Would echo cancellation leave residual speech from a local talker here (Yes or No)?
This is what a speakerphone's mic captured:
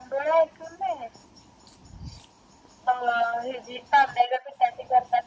No